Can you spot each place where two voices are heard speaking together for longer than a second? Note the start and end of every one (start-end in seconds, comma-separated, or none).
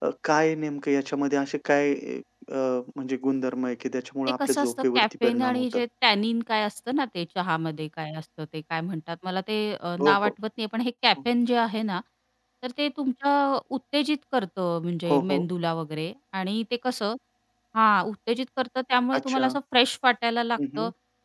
4.4-5.8